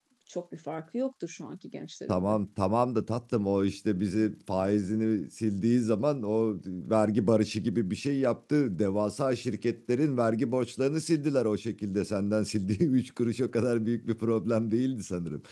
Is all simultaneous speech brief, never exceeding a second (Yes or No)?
Yes